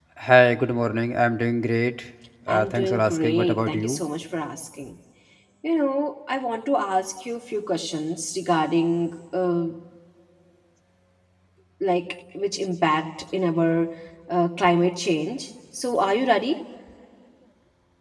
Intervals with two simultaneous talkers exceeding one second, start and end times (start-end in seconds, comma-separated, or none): 2.5-4.0